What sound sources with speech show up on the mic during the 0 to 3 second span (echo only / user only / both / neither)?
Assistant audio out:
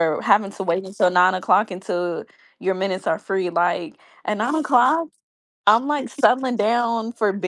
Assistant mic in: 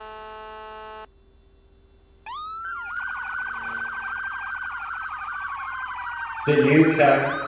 neither